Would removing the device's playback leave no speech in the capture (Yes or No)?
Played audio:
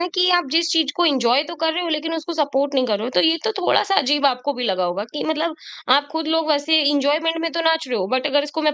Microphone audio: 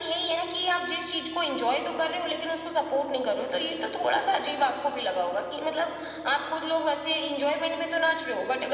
Yes